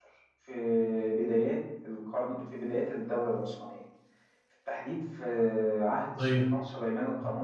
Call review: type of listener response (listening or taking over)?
listening